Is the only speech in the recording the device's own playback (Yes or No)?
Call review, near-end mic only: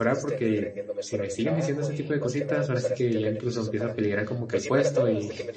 No